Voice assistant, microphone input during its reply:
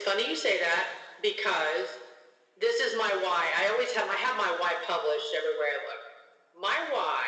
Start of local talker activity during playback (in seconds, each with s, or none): none